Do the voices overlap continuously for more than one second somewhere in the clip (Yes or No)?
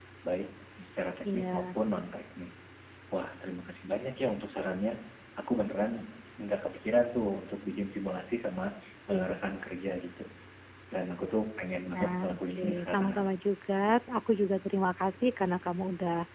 Yes